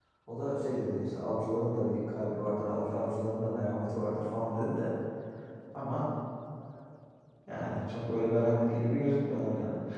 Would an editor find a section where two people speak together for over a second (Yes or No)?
No